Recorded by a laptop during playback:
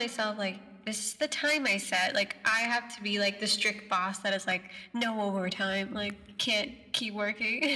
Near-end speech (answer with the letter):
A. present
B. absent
B